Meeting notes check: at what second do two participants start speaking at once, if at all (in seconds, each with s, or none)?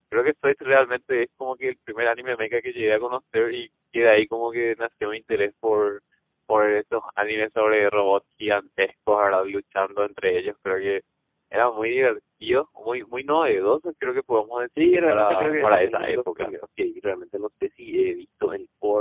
14.8 s